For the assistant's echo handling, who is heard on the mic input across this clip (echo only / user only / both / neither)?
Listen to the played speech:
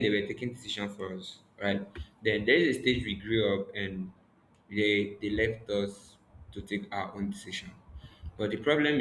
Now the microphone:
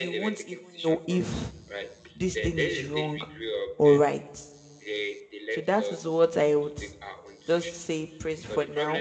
both